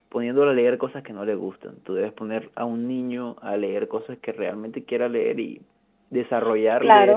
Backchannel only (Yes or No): Yes